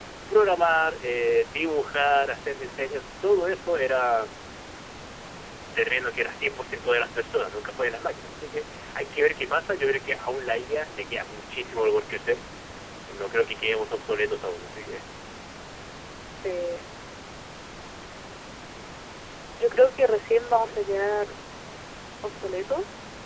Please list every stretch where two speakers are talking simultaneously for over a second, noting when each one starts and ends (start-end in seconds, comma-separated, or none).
none